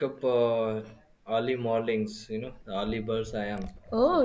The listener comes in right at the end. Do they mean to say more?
Yes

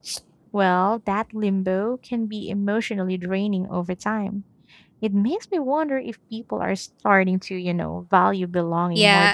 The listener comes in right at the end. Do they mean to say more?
Yes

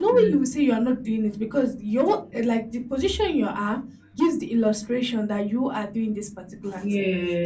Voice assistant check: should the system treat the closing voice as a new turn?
No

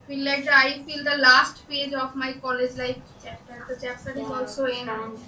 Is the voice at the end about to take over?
Yes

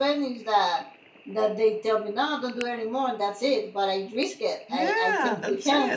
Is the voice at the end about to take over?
Yes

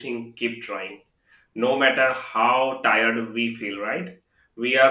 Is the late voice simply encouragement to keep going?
Yes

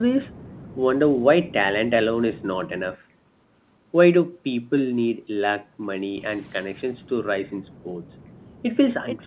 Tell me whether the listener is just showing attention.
No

